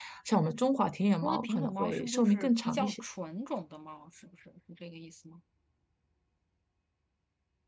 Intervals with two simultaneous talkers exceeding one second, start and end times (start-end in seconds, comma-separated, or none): 1.2-3.0